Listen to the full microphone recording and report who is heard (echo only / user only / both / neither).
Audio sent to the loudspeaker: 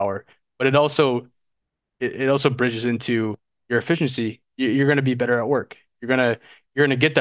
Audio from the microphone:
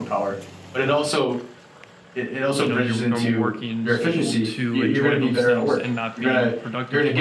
both